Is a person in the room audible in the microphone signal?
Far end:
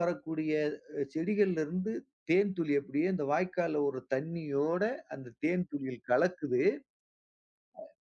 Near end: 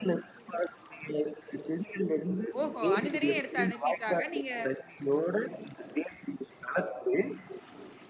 Yes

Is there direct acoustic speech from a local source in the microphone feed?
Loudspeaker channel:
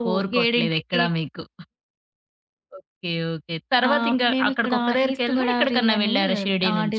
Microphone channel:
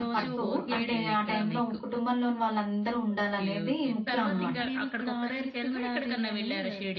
Yes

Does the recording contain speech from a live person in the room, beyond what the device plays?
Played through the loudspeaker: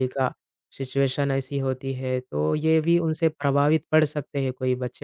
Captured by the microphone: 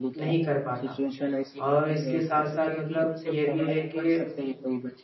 Yes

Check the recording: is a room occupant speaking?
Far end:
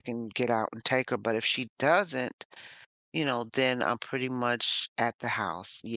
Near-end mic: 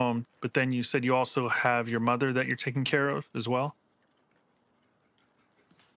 Yes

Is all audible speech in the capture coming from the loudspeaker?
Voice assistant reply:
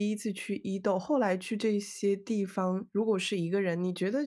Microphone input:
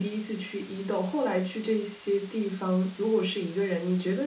Yes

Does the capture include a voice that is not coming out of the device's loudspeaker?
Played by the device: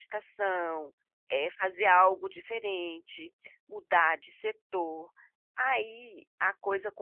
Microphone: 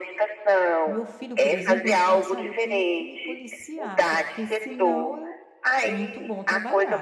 Yes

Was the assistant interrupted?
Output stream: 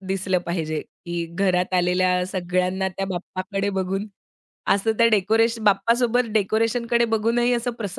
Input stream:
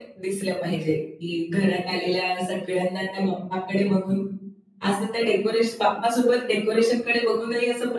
No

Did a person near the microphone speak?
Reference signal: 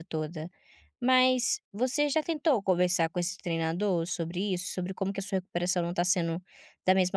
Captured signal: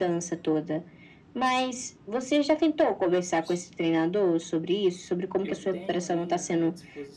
Yes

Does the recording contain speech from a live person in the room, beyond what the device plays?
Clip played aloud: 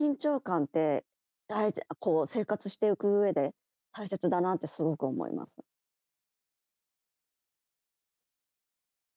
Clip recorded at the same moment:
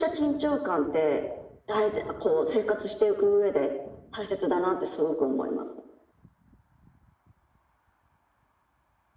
No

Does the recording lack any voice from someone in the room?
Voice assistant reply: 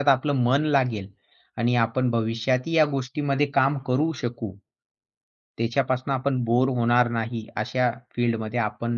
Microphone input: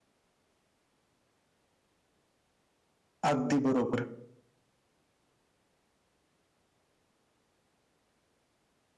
No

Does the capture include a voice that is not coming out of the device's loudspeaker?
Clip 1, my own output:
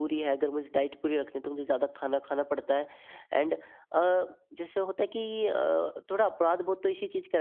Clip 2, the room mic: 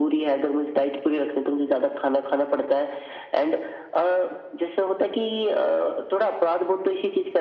No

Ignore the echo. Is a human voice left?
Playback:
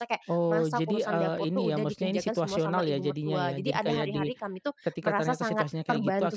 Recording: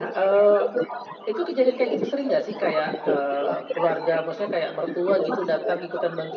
Yes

